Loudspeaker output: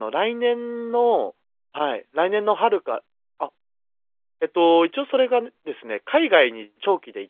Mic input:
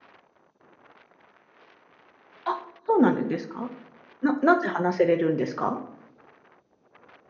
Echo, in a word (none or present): none